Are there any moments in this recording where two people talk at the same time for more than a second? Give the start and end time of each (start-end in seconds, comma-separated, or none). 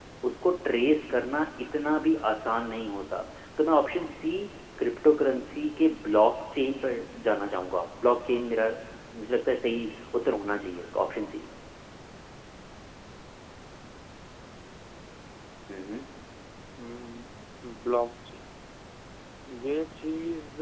none